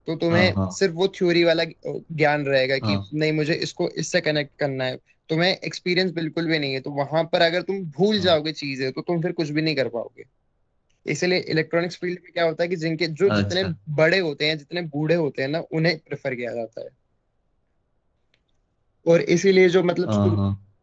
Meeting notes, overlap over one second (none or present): none